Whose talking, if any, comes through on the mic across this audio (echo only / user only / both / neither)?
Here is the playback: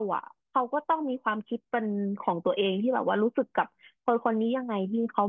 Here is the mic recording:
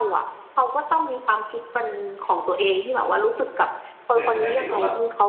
both